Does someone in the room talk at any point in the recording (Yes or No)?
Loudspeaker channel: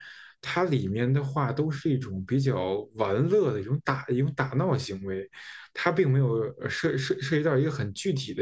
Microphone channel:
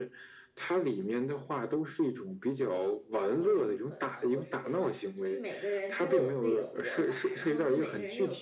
Yes